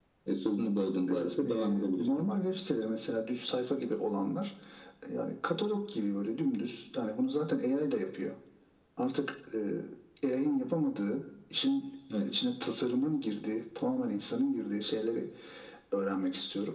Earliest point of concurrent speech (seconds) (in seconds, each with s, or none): 1.1 s